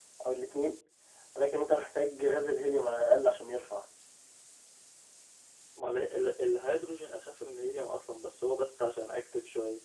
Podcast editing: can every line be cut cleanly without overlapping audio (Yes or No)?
Yes